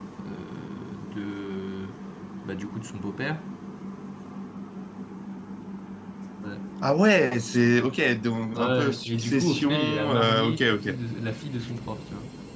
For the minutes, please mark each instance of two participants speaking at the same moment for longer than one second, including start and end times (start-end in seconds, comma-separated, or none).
8.6-10.9